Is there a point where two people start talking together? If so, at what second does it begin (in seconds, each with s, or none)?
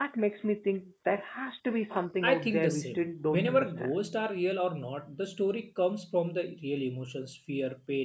2.2 s